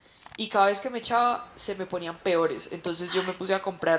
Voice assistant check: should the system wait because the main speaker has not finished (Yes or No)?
Yes